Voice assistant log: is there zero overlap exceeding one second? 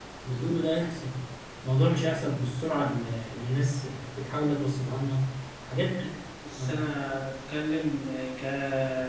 Yes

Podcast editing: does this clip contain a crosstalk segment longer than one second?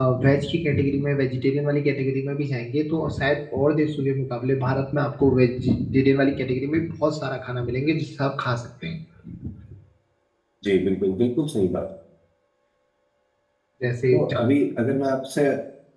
No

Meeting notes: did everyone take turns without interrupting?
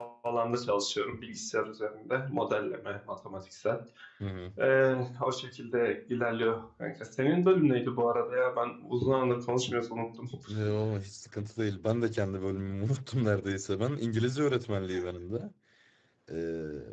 Yes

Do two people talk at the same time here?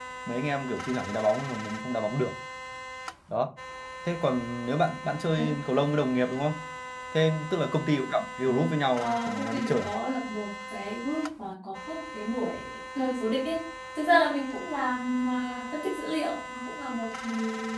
Yes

